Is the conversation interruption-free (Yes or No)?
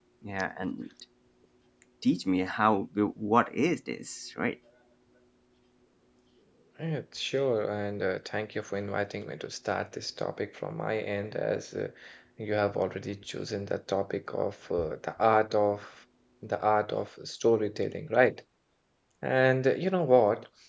Yes